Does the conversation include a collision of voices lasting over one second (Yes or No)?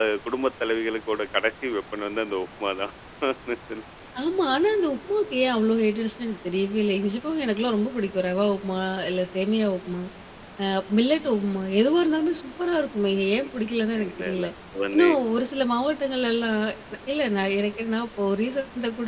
No